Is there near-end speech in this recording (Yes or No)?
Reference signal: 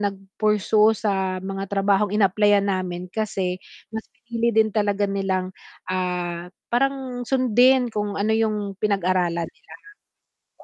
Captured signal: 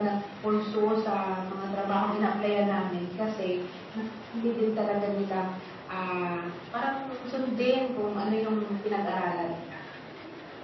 No